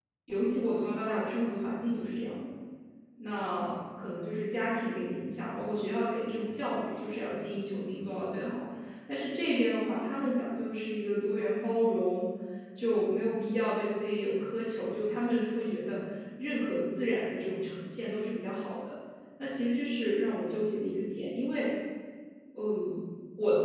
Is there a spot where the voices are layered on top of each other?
No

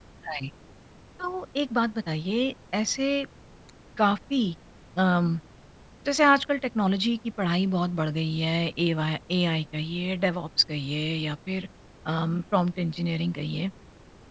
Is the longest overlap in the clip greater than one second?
No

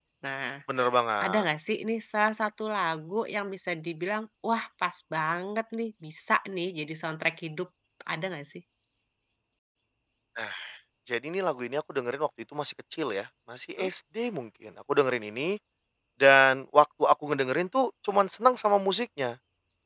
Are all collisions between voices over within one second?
Yes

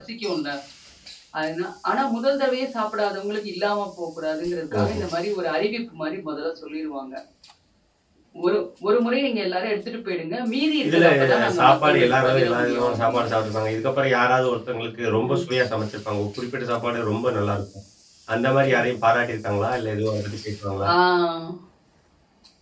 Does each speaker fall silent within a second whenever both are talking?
No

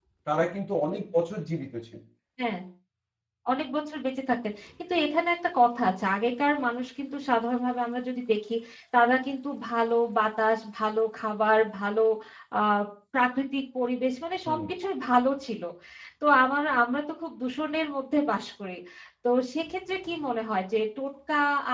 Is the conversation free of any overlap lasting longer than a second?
Yes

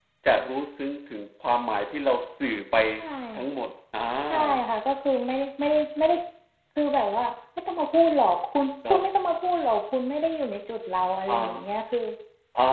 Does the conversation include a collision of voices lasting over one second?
No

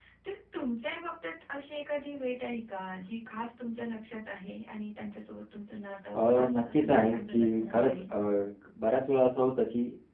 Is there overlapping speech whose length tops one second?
Yes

